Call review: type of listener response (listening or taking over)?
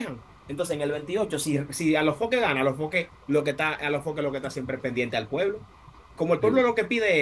listening